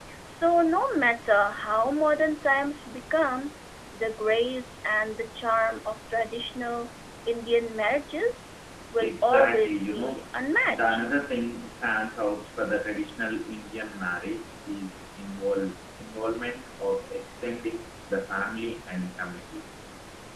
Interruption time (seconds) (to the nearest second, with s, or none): 9 s